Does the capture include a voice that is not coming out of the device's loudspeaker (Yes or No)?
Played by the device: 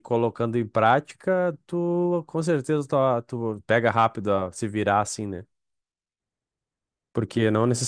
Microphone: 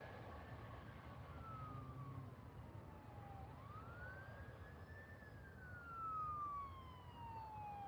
No